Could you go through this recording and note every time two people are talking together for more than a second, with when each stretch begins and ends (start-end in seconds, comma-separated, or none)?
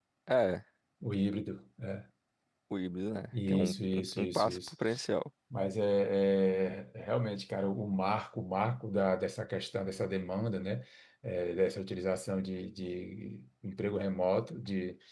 3.5-4.7